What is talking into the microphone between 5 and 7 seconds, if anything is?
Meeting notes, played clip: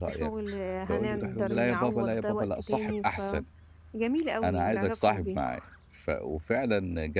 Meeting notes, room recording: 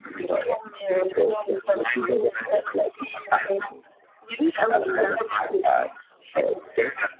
echo only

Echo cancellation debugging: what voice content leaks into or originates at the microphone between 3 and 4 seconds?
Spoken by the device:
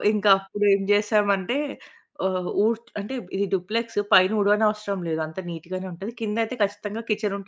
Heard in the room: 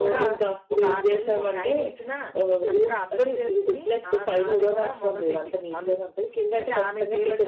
both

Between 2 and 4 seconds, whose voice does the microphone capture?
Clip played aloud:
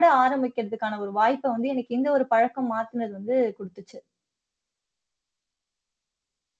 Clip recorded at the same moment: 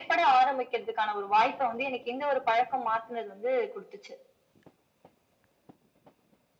echo only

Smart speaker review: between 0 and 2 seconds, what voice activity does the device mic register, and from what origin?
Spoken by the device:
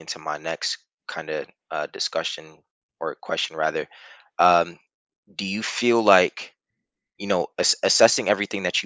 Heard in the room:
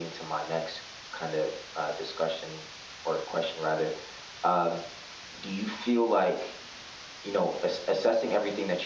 echo only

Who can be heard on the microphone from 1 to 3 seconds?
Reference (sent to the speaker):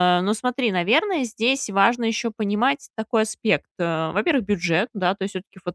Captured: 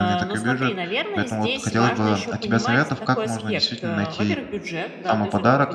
both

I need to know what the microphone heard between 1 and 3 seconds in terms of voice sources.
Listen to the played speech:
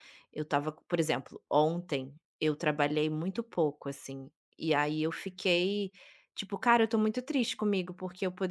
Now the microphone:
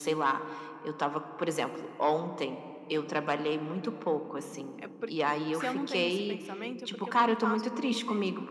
echo only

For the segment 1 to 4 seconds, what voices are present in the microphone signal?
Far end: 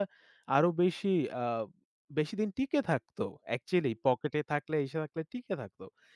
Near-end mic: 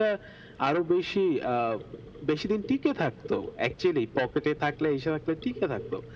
echo only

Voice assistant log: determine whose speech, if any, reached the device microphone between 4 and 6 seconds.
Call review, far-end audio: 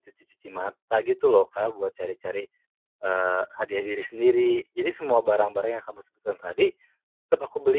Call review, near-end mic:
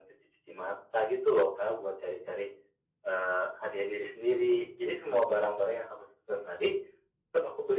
echo only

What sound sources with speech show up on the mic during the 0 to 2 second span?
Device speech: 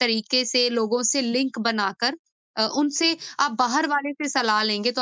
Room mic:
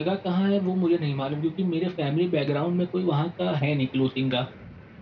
user only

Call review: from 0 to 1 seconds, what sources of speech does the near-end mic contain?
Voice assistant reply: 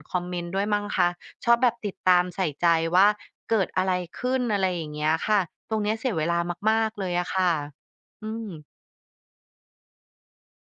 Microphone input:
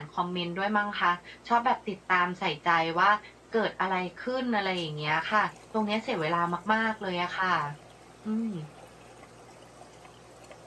echo only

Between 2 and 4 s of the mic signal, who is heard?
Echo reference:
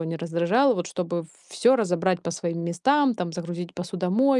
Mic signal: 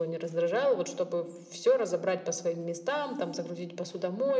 echo only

